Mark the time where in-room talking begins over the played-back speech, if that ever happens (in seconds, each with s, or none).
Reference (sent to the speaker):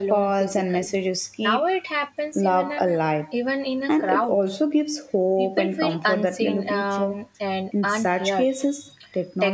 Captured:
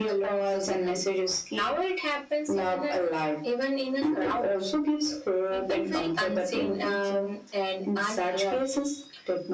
none